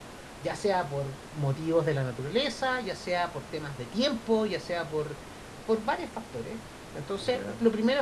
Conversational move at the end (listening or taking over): listening